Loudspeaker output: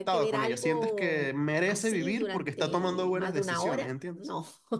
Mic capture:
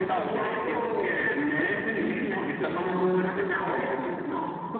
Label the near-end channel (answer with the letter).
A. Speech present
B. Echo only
B